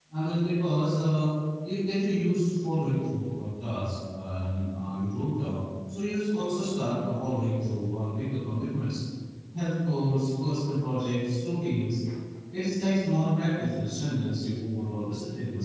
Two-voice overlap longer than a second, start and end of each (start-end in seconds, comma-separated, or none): none